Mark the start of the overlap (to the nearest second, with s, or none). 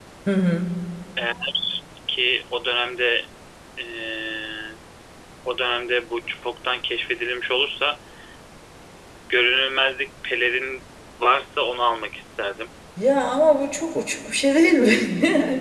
none